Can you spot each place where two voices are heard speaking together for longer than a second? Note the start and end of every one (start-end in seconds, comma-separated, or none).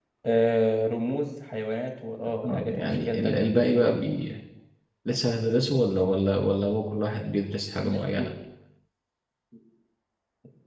2.4-3.8